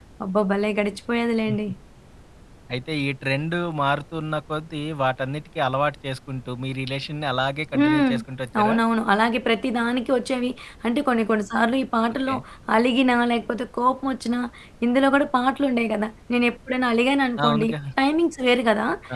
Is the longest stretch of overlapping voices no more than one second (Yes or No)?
Yes